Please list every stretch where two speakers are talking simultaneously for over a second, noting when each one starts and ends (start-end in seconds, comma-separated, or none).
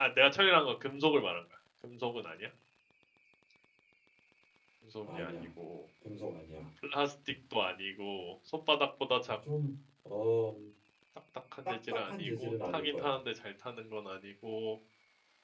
11.7-13.1